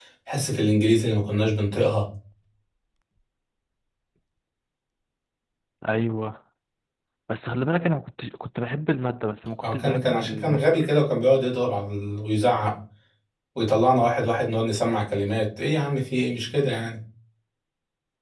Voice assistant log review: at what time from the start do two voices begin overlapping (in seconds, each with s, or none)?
9.6 s